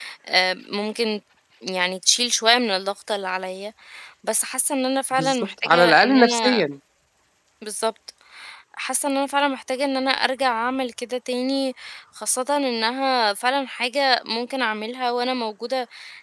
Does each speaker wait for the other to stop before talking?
No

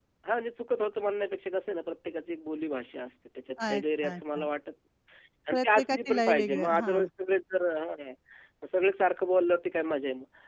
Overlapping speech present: Yes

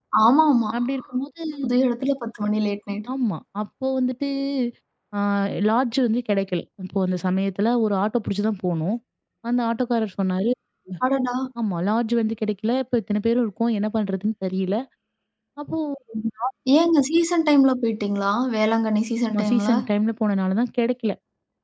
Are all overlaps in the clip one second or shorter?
Yes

